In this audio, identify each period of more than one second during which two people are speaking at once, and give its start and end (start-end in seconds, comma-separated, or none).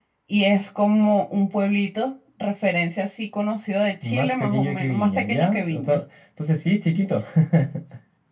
4.0-6.0